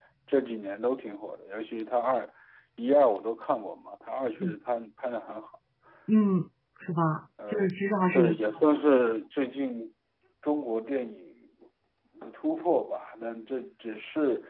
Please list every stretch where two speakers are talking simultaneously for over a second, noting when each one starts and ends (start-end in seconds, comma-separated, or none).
none